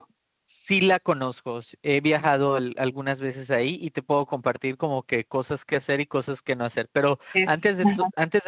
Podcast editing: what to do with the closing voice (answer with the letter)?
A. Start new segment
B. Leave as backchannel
B